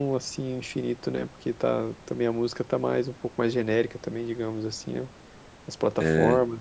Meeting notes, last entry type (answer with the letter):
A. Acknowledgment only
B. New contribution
B